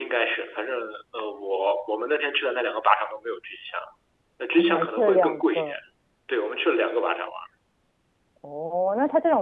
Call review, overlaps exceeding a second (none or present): present